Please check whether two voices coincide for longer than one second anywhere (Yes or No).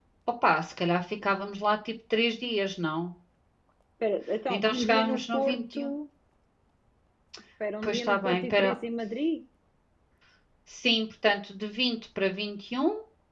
Yes